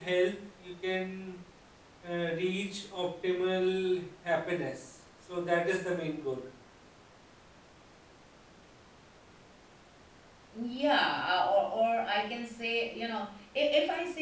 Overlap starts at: none

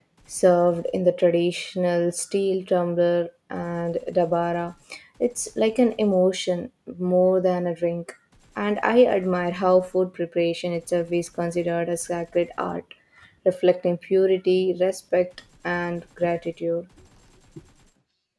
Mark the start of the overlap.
none

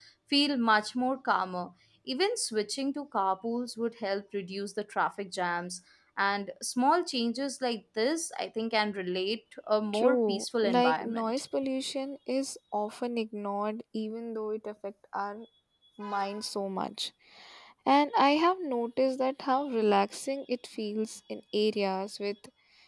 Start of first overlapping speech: 9.9 s

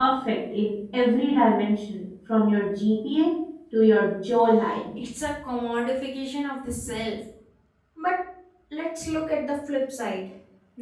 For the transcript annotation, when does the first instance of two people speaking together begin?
none

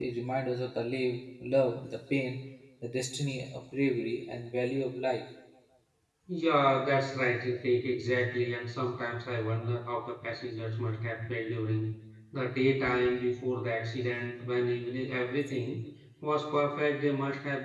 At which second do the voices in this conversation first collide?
none

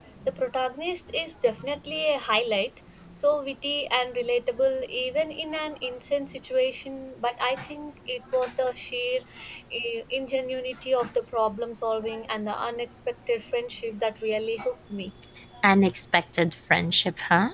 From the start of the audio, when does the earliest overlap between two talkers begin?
none

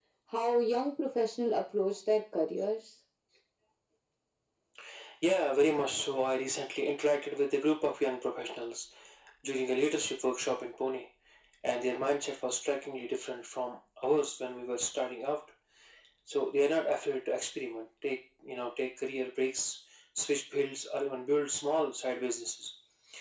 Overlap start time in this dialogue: none

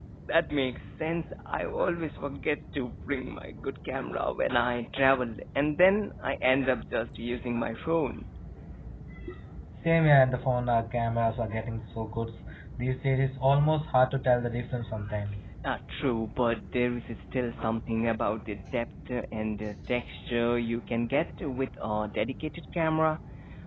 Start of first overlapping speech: none

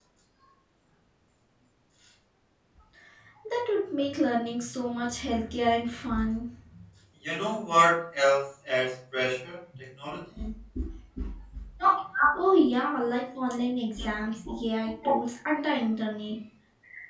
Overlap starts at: none

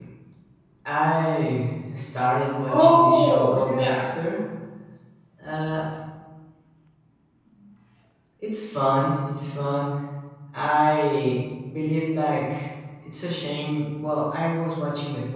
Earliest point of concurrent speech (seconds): 2.7 s

